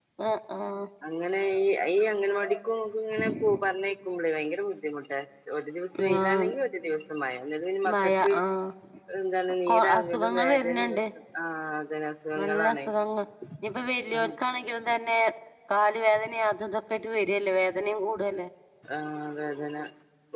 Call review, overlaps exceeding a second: present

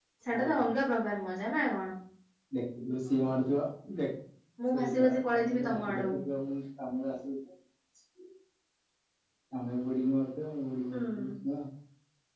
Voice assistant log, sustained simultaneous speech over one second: present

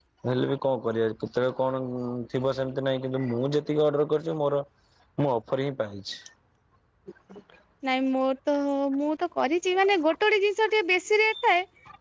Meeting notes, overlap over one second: none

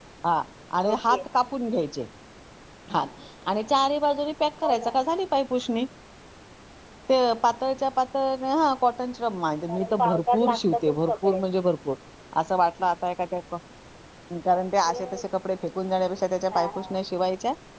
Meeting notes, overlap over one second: present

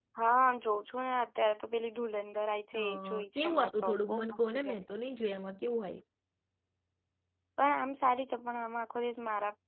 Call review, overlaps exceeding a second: present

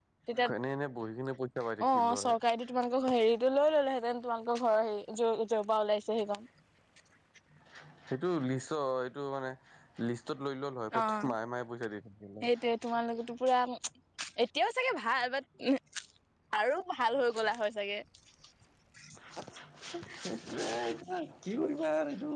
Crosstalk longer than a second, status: none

